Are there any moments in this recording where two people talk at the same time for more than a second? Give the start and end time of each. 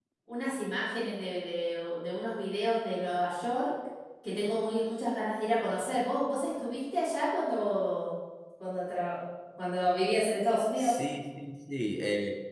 none

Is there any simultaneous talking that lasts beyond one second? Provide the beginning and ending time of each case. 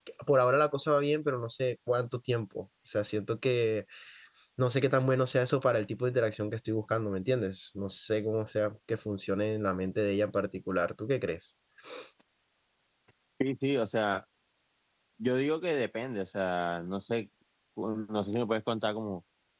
none

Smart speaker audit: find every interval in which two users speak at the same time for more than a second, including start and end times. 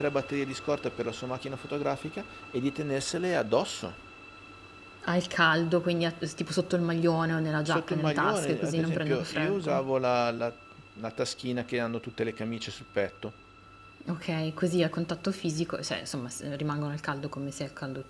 7.6-9.8

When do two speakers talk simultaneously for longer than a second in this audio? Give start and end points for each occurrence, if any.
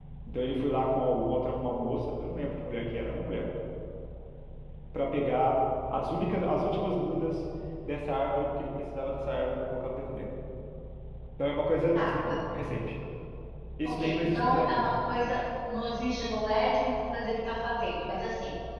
13.8-15.2

